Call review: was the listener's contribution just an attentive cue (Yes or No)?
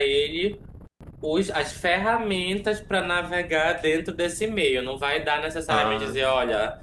Yes